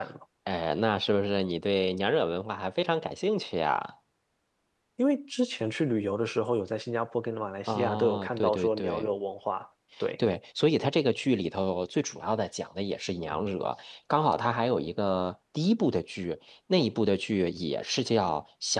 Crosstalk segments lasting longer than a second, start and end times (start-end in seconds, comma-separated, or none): 7.7-9.1